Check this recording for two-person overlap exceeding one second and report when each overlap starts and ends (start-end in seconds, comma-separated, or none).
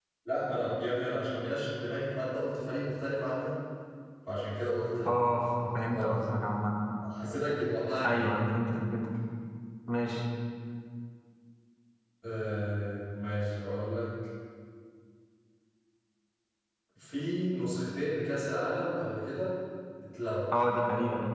none